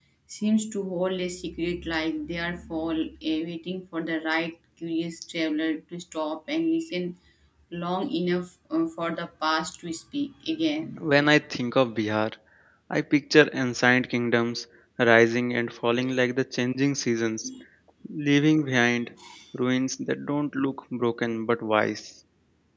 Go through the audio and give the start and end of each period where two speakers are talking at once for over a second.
none

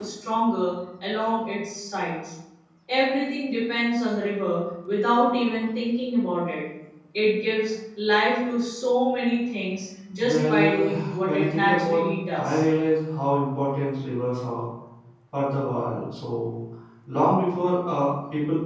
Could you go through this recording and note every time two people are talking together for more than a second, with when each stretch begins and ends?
10.2-12.6

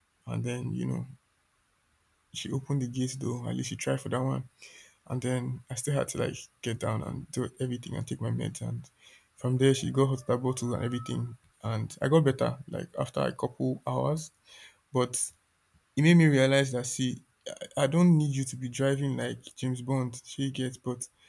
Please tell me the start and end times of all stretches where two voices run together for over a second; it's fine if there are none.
none

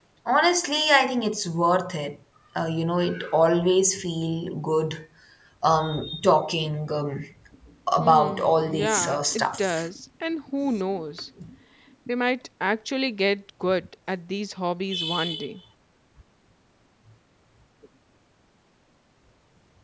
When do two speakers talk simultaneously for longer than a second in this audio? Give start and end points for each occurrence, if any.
8.0-9.8

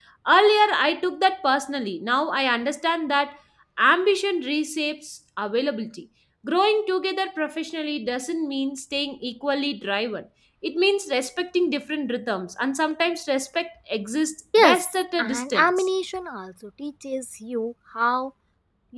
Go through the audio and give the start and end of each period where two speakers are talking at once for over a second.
14.6-15.9

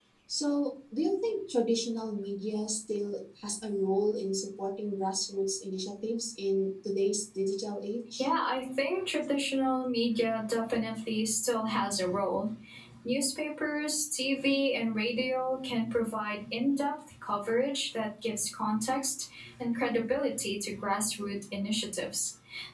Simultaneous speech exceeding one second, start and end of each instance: none

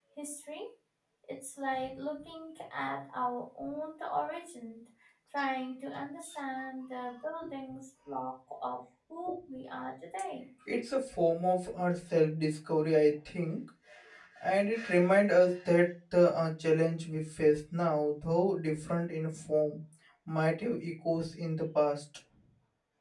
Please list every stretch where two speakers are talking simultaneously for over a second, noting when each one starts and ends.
none

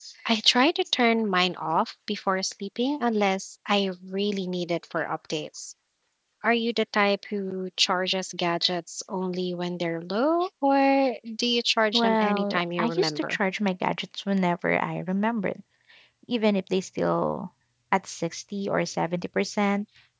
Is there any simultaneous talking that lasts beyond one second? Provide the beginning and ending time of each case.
11.9-13.4

